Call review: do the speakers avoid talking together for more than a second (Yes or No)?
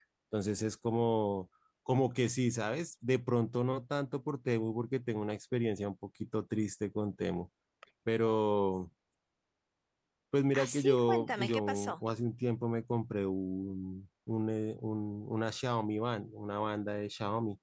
No